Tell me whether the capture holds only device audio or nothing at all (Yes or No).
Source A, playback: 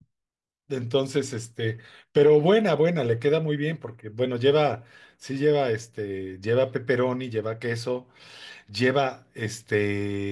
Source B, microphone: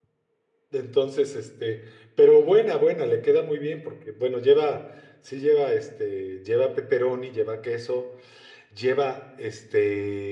Yes